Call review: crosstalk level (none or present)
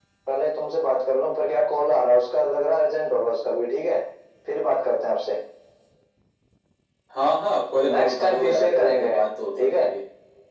present